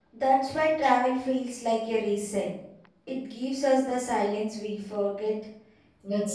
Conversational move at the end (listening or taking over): taking over